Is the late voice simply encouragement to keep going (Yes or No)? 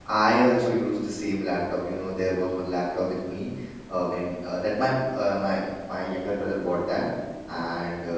Yes